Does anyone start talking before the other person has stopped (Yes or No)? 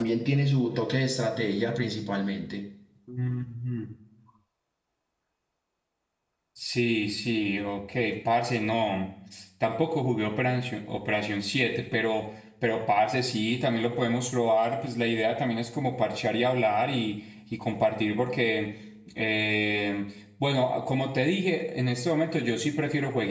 No